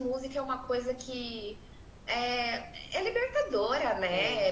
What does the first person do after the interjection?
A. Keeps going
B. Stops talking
A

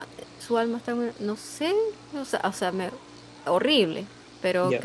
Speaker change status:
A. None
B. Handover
A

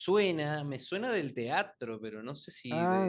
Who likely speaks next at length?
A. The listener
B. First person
A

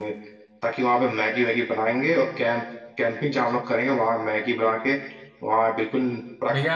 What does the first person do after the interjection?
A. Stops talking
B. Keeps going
A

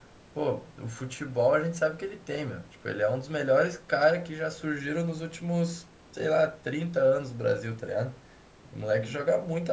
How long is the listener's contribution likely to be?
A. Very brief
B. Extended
A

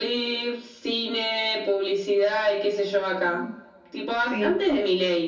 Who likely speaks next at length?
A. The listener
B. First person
B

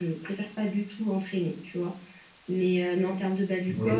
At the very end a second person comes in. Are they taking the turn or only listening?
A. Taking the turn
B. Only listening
B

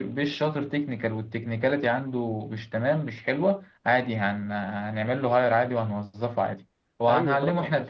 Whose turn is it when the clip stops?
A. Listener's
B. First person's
A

